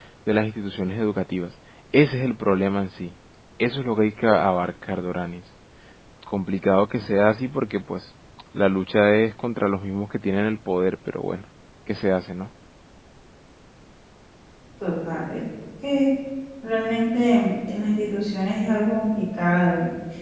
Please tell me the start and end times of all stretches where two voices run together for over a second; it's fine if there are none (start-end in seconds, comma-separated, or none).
none